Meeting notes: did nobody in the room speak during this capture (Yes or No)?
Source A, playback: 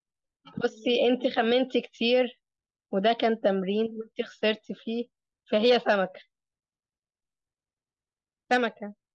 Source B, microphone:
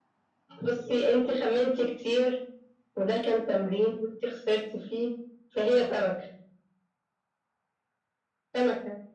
Yes